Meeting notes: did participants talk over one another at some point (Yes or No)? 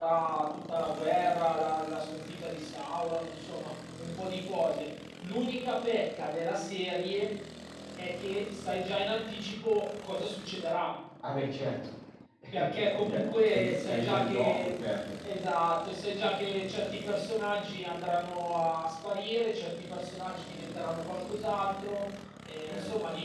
Yes